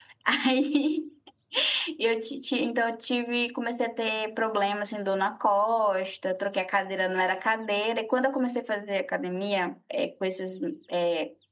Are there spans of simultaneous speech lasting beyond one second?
No

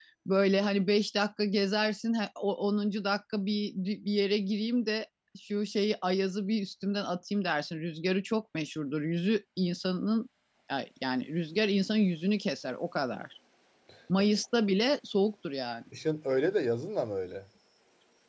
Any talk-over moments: No

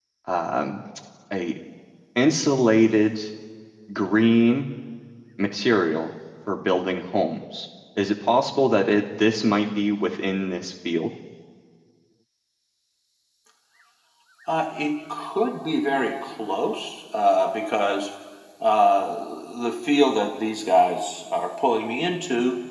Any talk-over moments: No

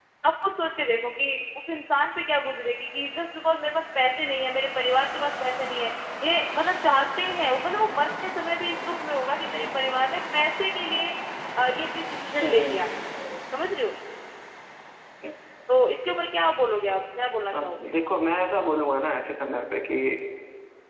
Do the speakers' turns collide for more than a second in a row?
No

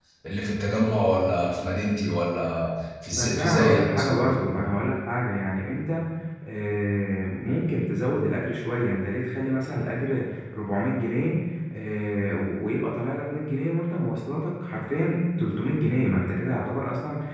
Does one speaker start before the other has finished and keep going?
Yes, from 3.1 s

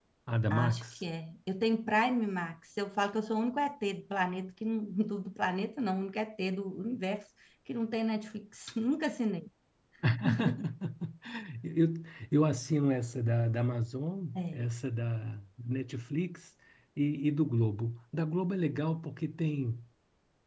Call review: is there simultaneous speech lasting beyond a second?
No

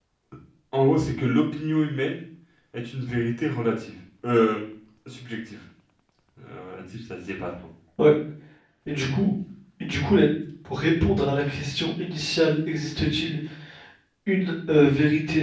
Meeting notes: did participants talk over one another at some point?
No

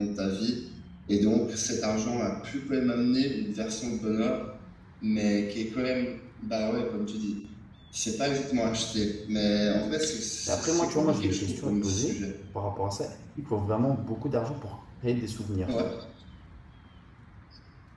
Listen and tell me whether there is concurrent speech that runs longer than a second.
Yes, from 10.5 s

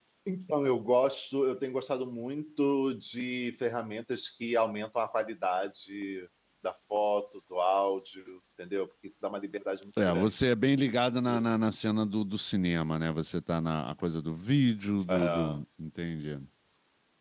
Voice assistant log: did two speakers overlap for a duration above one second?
No

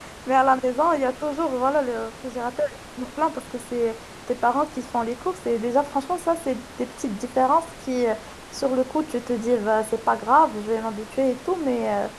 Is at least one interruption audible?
No

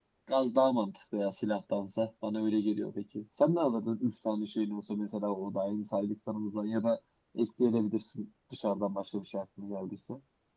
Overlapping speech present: No

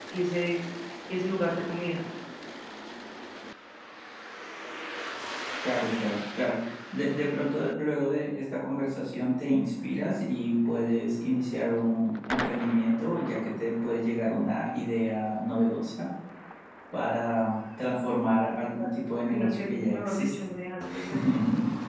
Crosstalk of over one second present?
Yes, from 18.6 s

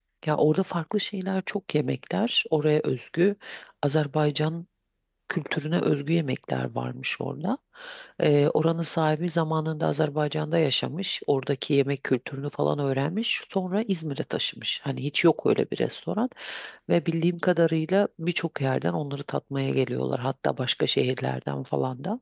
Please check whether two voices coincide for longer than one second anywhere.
No

